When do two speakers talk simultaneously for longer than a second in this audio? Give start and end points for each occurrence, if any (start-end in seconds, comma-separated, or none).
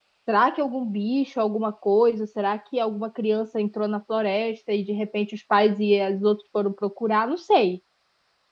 none